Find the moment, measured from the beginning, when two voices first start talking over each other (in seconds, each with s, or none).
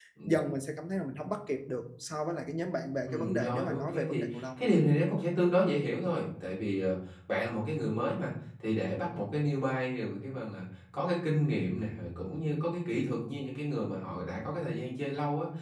3.1 s